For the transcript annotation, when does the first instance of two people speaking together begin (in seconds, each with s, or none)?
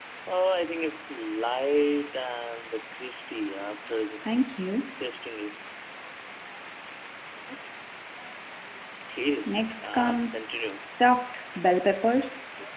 9.4 s